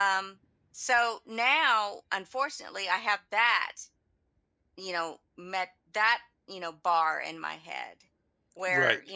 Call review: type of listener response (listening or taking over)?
listening